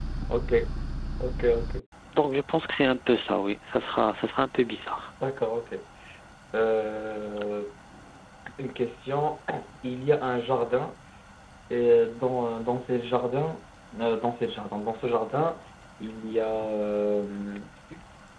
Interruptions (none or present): none